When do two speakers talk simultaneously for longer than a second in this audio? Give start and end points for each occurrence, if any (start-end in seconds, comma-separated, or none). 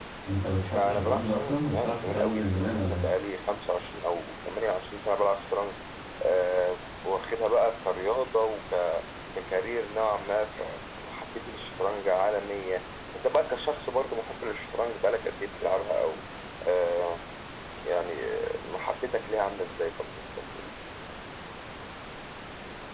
0.8-3.1